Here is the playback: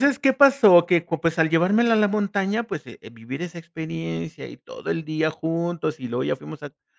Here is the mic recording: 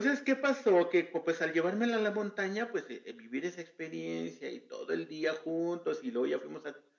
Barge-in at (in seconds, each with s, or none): none